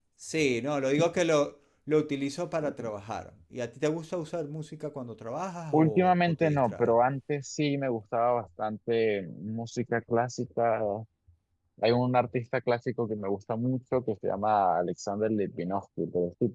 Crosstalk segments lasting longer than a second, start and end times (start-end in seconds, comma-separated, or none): 5.7-6.9